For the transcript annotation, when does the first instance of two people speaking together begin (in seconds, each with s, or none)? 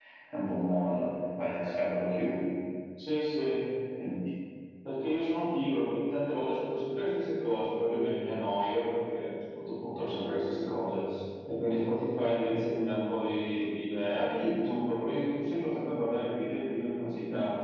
none